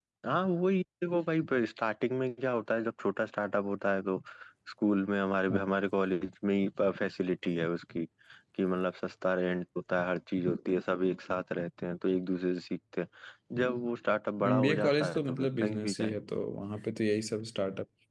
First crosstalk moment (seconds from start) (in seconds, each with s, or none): 14.5 s